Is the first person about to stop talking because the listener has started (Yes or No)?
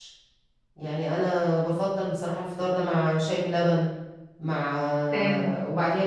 No